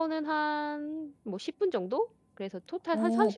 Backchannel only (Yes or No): No